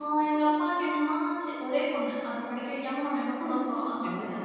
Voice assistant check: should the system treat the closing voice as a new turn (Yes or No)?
No